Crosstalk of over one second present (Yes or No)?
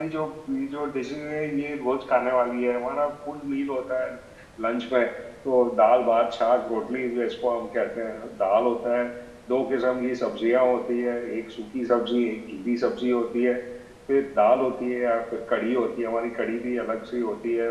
No